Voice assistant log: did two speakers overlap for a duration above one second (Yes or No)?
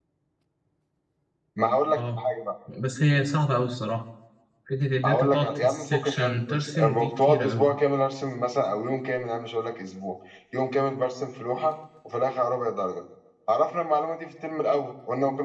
Yes